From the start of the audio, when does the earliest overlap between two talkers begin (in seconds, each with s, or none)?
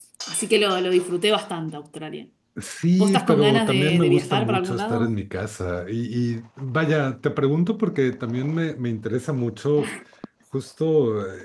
3.0 s